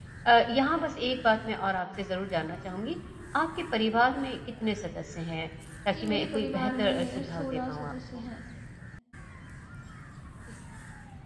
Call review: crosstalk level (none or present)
present